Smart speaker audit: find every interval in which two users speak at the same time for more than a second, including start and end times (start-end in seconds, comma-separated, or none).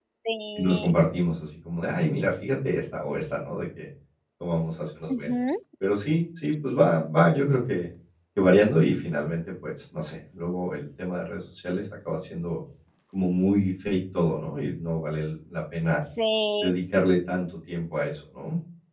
none